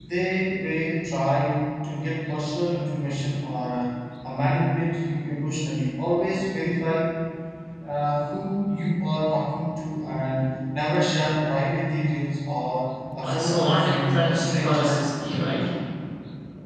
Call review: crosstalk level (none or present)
present